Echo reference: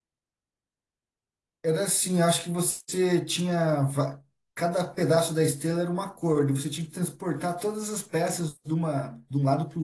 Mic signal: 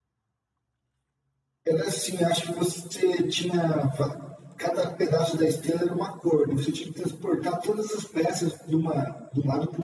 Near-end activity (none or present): none